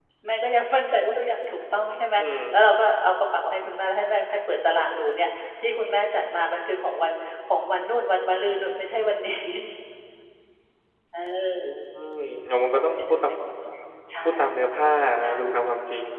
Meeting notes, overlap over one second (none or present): none